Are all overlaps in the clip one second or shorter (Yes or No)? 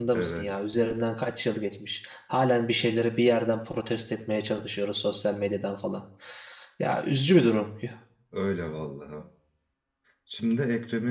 Yes